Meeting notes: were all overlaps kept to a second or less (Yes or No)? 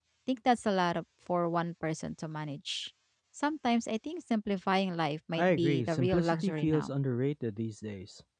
No